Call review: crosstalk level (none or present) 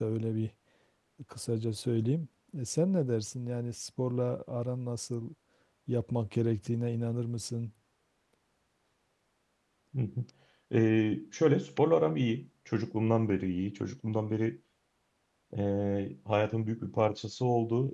none